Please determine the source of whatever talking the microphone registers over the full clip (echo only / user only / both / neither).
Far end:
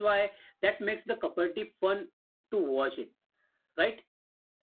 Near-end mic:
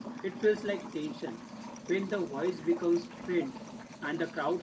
user only